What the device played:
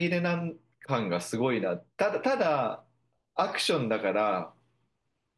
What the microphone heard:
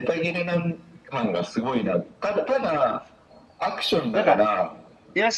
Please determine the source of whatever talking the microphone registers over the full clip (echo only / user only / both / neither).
both